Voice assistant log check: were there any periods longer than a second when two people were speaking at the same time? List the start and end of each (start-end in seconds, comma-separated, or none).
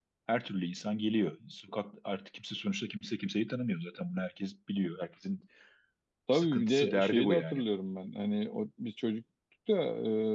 6.3-7.6